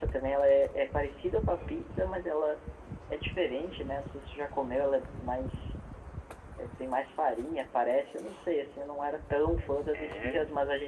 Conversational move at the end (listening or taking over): listening